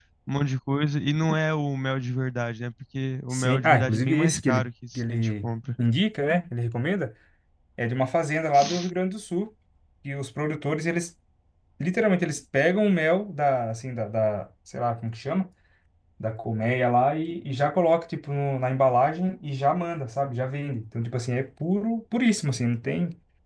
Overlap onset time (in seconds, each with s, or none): 3.3 s